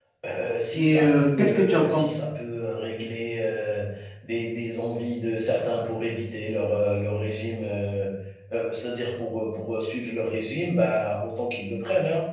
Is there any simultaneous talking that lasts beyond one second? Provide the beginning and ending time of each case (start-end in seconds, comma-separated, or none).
0.7-2.2